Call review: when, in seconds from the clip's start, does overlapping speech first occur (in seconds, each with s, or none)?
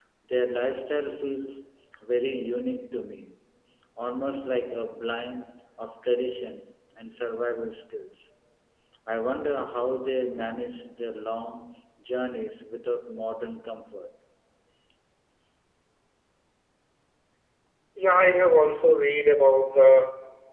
none